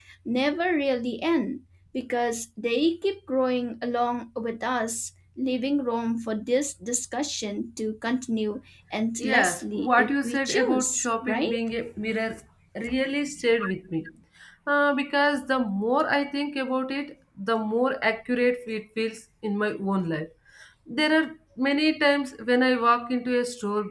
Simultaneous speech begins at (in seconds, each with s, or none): 9.2 s